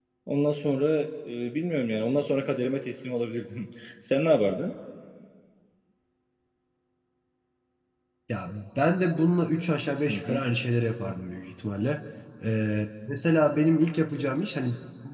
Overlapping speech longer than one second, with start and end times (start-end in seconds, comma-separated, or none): none